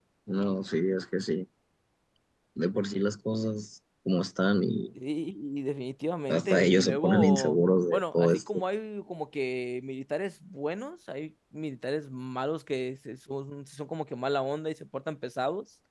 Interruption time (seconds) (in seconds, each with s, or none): 6.3 s